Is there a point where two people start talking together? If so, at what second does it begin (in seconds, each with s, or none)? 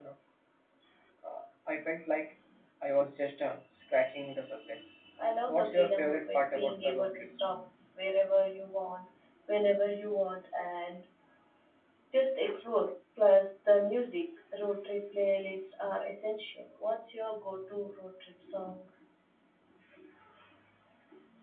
5.5 s